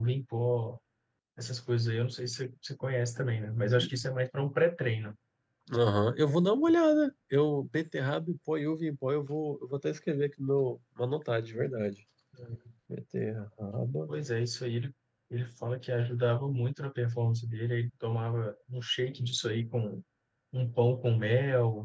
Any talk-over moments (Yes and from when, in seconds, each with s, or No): No